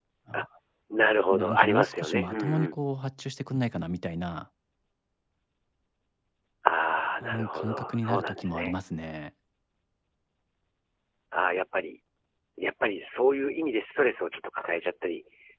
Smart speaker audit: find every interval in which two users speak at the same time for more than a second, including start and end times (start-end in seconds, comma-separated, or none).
1.3-2.8, 7.2-8.7